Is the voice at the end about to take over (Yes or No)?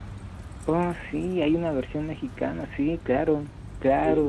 Yes